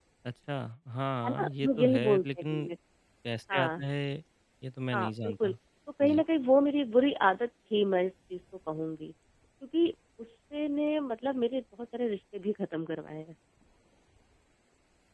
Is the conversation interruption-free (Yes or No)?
No